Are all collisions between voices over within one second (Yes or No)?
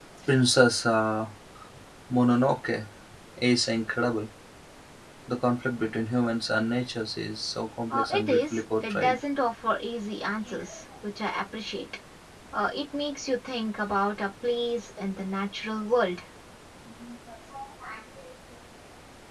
No